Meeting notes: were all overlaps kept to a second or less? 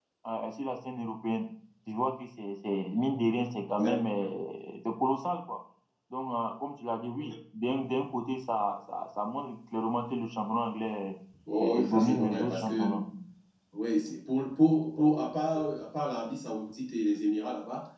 No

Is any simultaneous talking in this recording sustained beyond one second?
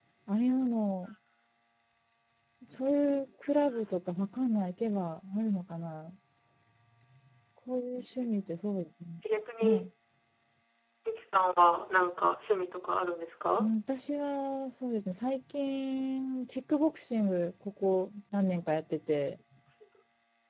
No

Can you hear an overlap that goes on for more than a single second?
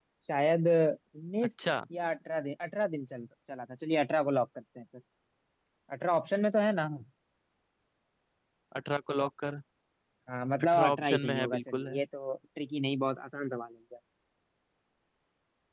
Yes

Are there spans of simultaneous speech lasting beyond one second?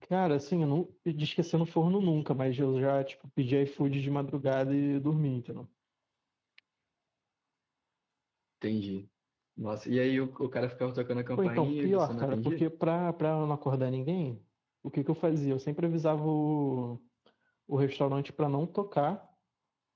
Yes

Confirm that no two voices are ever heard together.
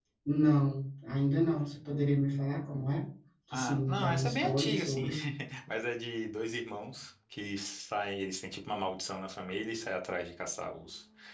No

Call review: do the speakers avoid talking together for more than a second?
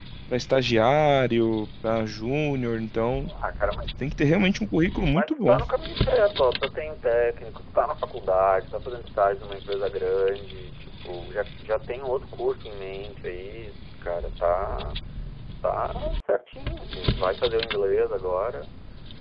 Yes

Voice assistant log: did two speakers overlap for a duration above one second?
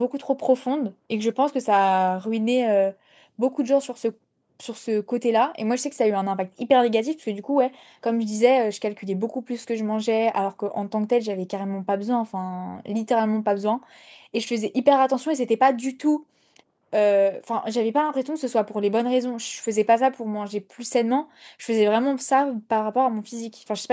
No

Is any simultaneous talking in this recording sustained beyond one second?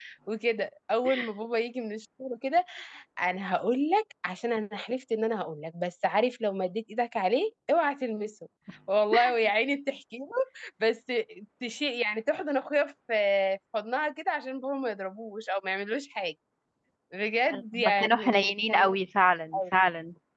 Yes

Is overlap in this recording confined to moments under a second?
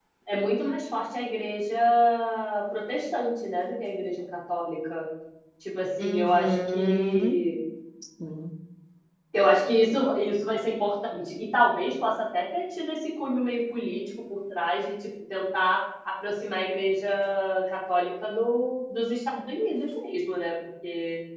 No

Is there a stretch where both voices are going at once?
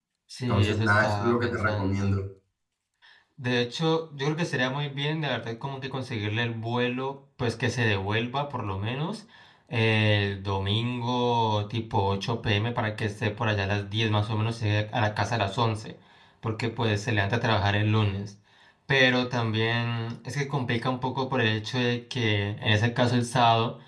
Yes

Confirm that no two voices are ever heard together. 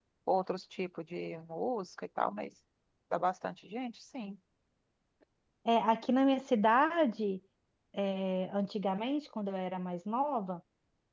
Yes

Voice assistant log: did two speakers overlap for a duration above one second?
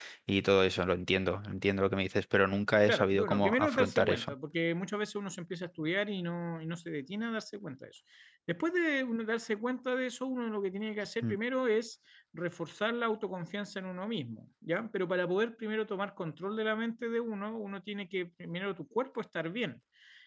Yes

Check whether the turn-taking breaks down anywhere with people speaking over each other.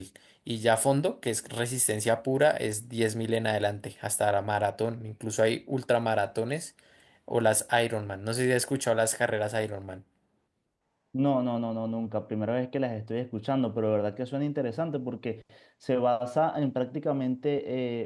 No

